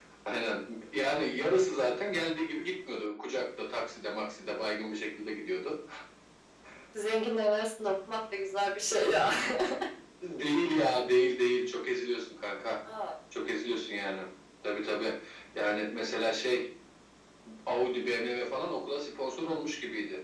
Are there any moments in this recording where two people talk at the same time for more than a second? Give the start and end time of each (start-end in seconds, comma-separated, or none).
none